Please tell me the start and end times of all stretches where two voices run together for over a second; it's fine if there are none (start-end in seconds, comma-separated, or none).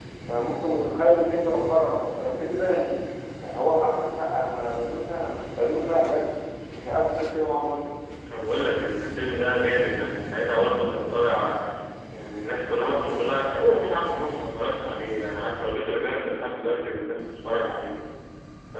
none